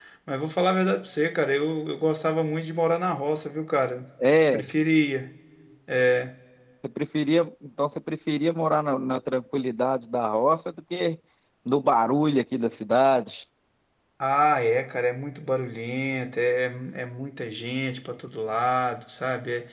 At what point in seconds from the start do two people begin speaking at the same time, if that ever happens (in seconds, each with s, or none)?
none